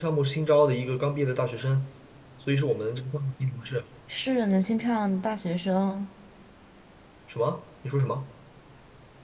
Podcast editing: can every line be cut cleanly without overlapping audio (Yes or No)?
Yes